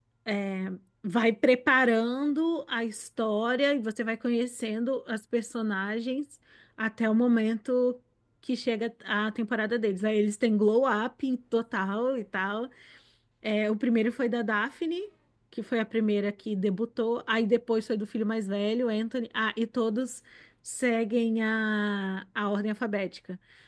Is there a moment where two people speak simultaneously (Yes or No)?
No